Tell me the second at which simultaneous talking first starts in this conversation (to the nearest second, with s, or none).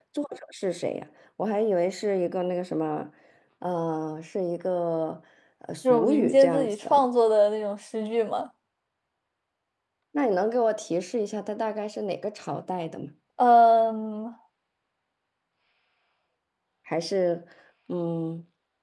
6 s